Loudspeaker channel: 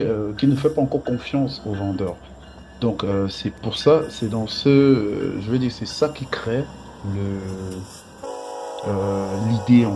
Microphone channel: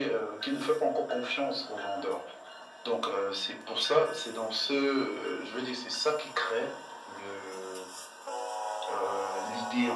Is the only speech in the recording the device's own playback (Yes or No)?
Yes